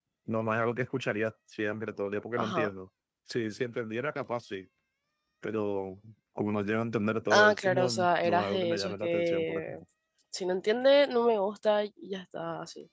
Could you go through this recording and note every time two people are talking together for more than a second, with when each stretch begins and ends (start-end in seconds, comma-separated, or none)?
7.3-9.8